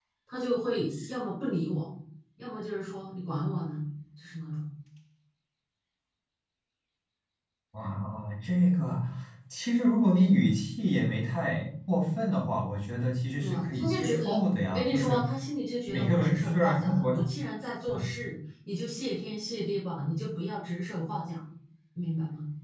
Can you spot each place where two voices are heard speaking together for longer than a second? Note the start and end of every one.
13.4-15.2, 15.9-17.1

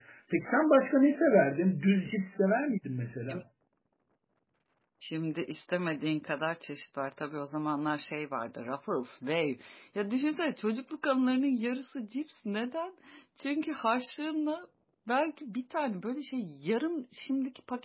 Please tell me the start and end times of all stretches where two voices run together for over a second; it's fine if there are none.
none

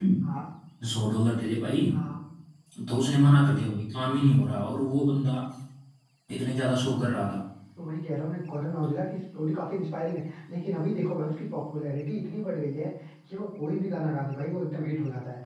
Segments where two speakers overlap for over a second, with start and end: none

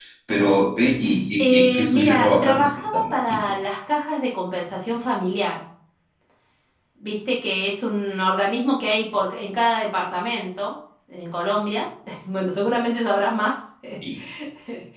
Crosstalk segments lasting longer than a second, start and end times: 1.5-3.6

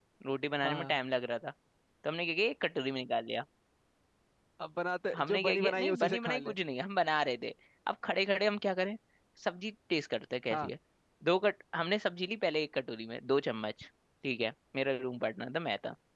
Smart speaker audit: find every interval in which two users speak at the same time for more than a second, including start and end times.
5.2-6.5

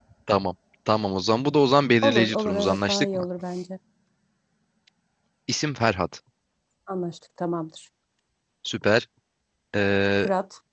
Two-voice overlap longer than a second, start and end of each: 2.0-3.2

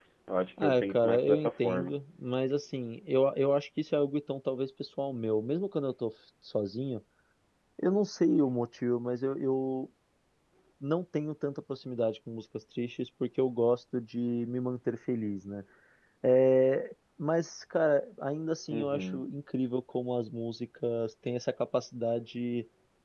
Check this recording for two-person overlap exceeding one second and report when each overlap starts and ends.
0.6-1.9

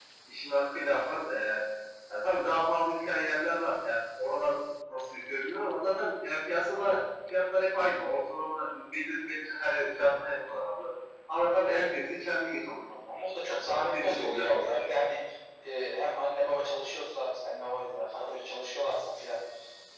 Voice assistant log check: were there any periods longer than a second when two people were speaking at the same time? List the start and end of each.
13.4-15.1

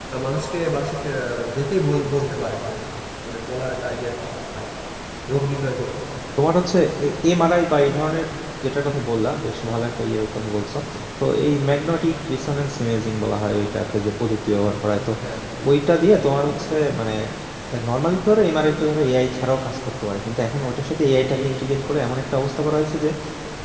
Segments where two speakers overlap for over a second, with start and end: none

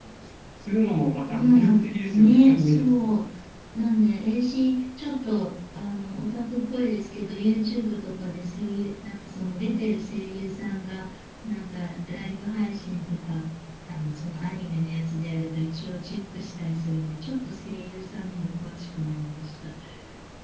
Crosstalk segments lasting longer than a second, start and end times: 1.3-3.1

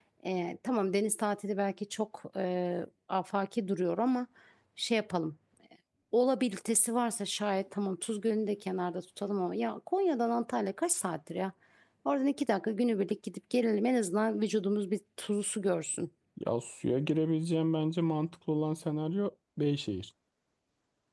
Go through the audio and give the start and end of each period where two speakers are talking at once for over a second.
none

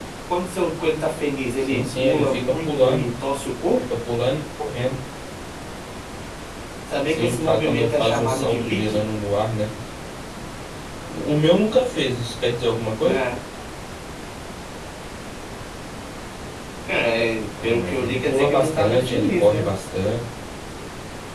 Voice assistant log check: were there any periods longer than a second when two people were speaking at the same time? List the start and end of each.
1.7-3.1, 7.1-9.0, 17.6-19.7

